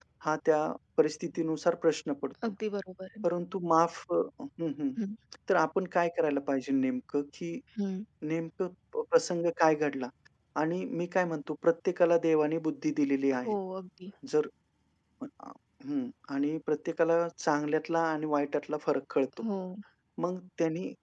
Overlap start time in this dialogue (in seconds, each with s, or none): none